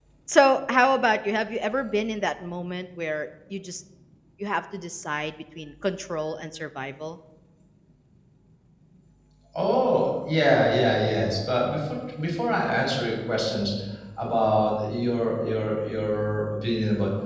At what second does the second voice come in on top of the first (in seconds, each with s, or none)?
none